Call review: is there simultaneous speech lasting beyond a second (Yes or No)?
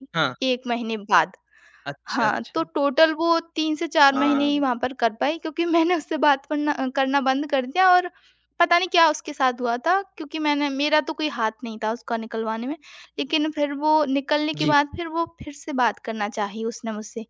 No